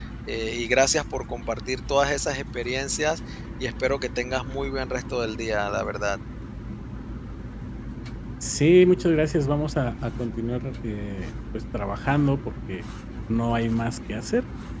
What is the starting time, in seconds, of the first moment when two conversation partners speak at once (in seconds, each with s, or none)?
none